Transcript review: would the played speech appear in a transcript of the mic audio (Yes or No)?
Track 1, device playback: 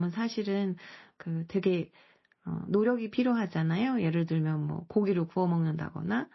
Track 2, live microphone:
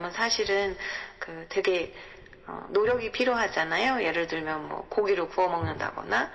Yes